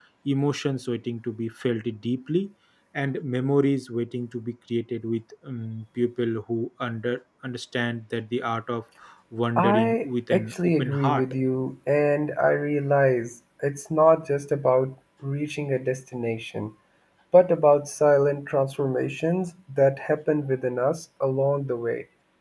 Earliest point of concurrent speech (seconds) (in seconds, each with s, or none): 9.6 s